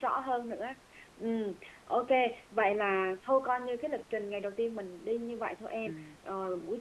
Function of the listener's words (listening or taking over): listening